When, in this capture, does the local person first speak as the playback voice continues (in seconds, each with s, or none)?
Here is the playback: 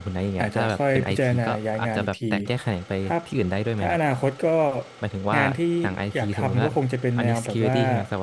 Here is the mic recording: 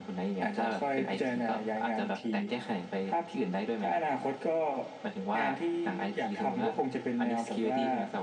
none